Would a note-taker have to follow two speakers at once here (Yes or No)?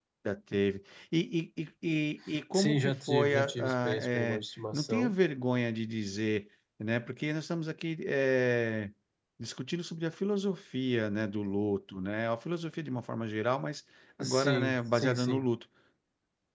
Yes